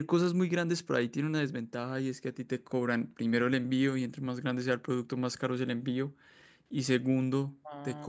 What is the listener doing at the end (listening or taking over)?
listening